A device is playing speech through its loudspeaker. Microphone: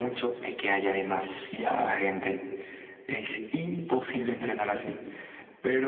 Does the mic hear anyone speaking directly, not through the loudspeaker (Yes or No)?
No